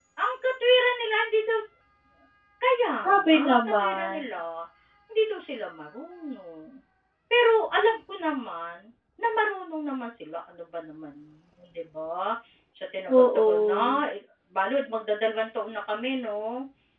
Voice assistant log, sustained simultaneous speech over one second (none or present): present